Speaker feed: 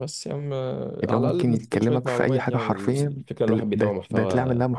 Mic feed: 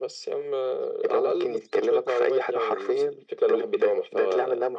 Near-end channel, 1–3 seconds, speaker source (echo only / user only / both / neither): echo only